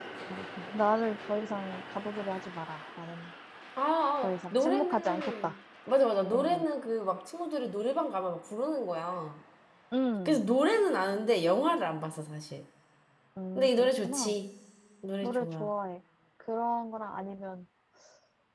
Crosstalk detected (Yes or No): Yes